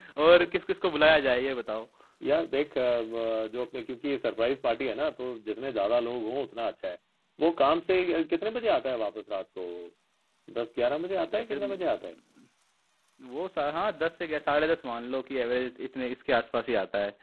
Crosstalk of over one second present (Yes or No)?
No